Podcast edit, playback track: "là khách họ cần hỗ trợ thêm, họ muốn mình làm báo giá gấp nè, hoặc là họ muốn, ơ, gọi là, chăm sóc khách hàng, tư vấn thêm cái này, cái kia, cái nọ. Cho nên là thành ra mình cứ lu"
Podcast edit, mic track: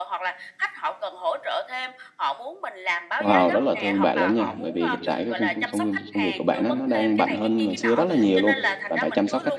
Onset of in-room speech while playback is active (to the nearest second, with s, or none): 3 s